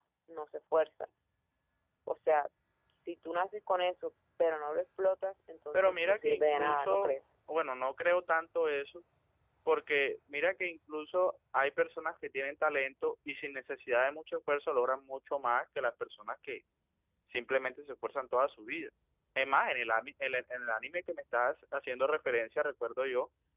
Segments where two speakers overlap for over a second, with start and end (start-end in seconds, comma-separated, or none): 5.7-7.1